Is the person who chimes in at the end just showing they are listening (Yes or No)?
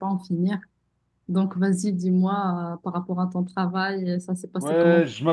No